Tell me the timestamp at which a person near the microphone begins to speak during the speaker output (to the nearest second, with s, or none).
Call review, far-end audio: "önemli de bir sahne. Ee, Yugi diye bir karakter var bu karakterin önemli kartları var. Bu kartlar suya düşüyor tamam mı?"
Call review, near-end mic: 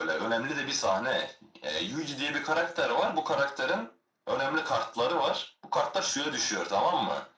none